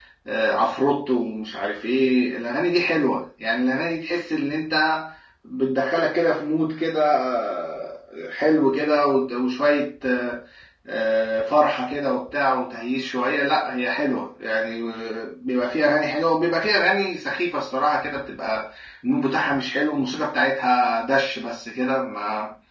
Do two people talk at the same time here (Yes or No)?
No